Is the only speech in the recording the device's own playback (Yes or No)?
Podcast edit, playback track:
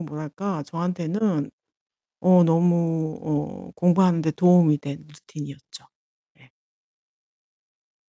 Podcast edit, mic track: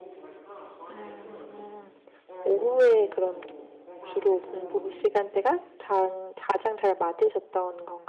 No